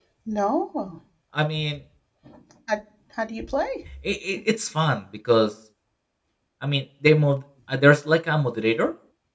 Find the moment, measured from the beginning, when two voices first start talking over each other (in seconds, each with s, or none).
none